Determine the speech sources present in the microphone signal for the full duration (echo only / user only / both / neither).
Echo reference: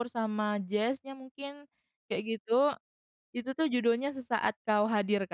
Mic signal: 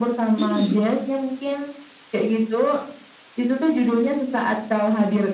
both